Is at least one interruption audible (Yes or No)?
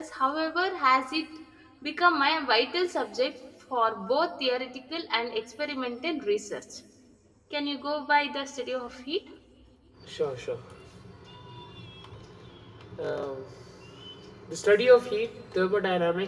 No